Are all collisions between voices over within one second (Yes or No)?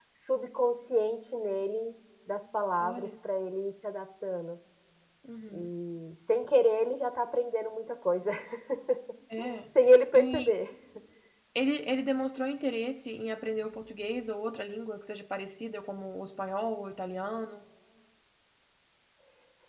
Yes